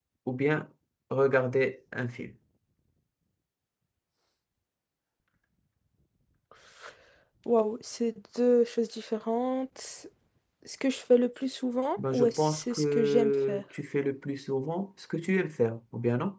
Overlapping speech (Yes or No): Yes